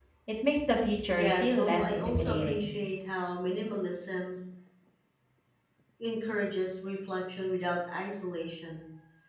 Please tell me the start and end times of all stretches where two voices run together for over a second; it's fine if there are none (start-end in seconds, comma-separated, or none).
1.2-2.7